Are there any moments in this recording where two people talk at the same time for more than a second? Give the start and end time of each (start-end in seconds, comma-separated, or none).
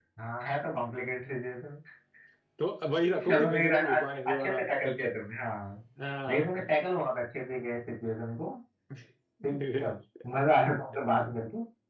3.3-4.6